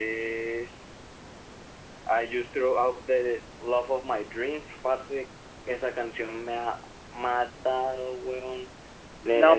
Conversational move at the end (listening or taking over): taking over